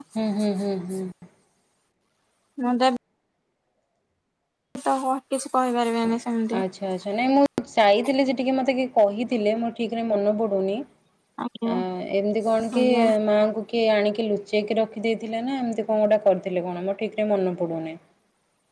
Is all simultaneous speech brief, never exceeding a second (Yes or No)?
Yes